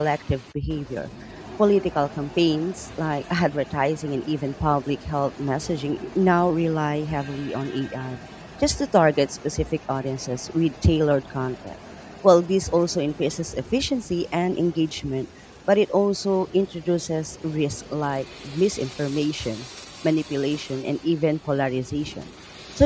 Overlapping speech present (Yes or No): No